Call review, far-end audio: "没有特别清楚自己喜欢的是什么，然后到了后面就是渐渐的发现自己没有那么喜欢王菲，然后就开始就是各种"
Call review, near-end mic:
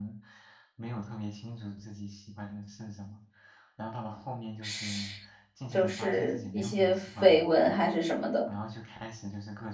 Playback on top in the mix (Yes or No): No